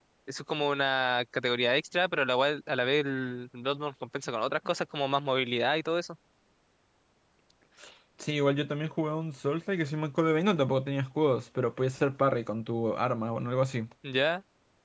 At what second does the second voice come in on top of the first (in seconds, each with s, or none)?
none